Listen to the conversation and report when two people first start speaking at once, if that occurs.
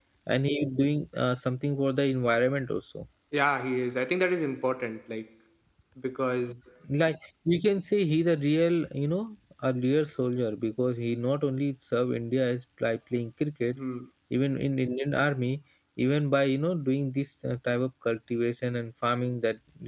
none

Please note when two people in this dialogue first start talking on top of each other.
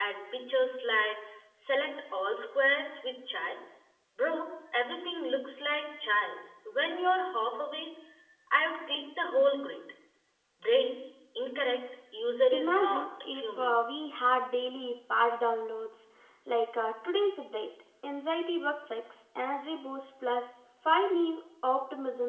12.5 s

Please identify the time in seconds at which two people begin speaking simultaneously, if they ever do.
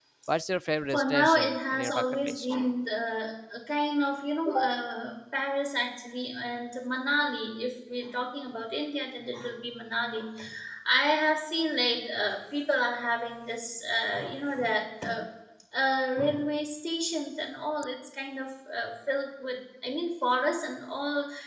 0.9 s

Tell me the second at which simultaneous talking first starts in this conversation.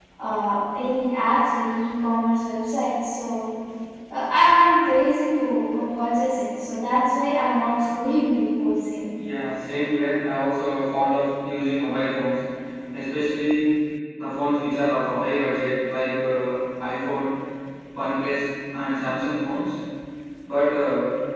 none

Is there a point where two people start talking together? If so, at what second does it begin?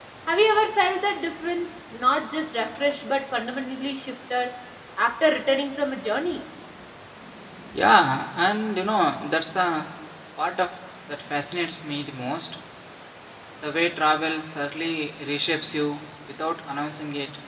none

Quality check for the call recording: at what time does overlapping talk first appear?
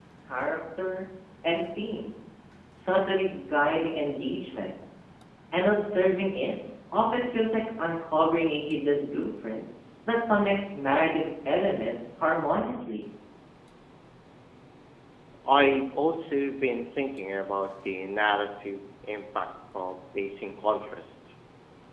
none

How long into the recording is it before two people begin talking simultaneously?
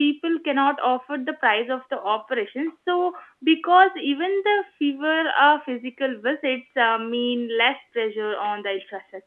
none

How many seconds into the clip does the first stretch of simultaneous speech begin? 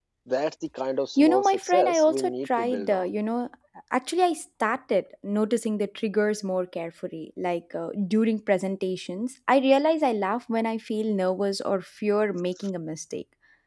1.2 s

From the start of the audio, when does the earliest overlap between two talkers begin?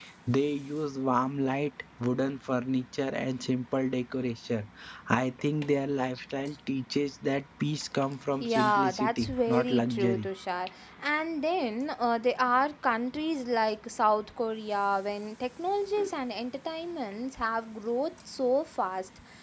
8.4 s

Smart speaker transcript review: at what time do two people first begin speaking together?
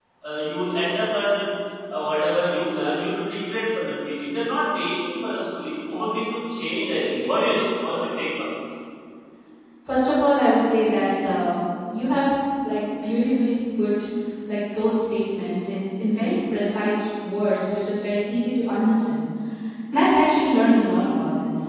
none

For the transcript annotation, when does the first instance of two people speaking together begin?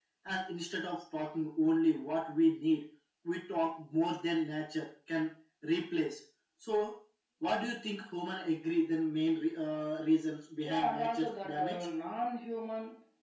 10.6 s

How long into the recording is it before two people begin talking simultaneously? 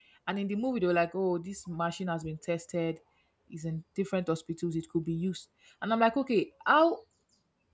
none

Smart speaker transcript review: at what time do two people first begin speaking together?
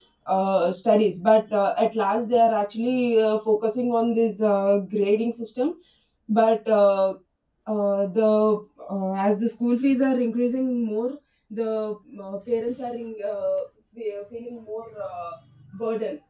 none

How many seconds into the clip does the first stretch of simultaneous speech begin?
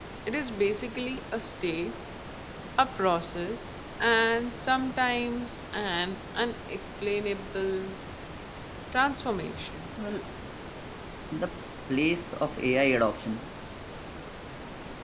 none

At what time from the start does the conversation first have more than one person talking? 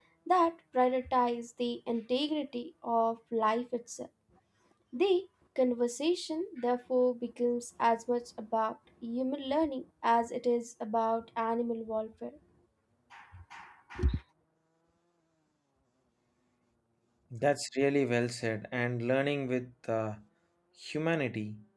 none

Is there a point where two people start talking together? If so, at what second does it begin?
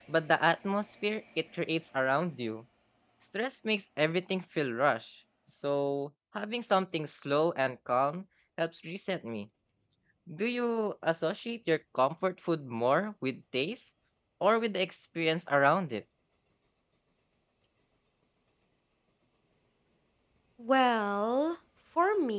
none

